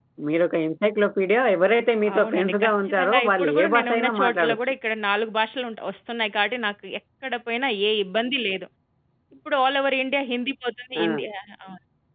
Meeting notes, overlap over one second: present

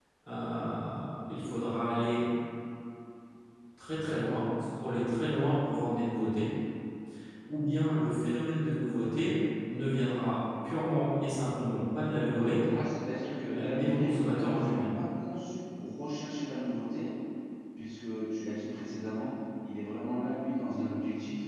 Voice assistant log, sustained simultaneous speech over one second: present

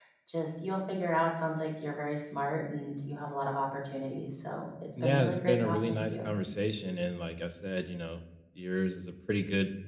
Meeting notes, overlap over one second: present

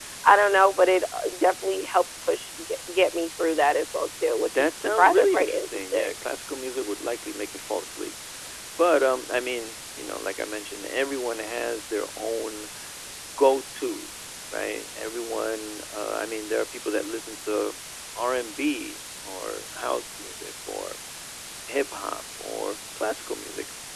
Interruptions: present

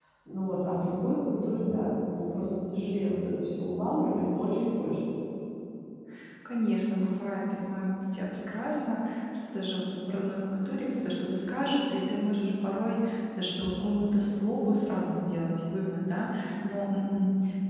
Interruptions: none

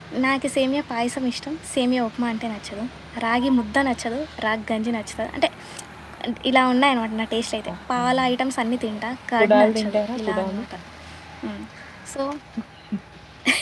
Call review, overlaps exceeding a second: present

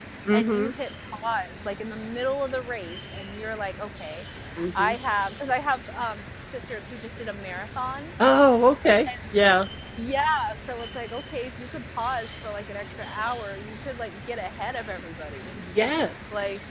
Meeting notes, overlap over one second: none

